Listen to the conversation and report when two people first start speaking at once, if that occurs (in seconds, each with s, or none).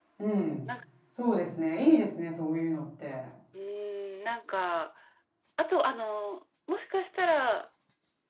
none